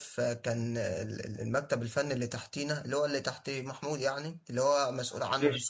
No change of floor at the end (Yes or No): Yes